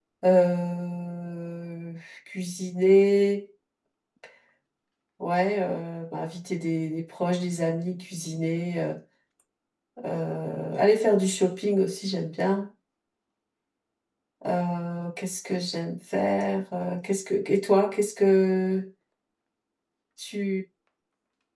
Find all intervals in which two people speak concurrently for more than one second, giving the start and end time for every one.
none

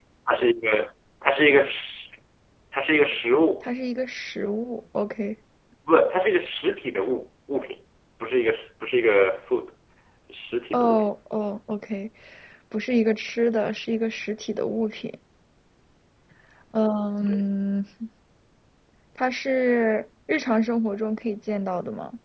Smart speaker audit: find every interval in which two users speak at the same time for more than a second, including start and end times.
none

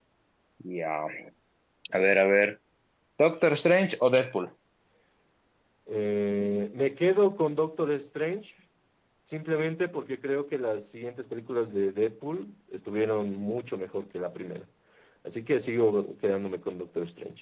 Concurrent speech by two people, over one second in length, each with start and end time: none

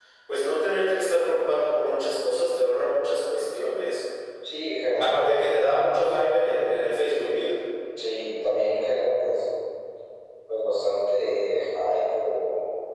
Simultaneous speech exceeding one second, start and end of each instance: none

